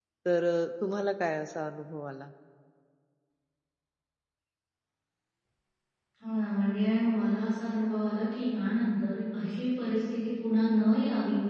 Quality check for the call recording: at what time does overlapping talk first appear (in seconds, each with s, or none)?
none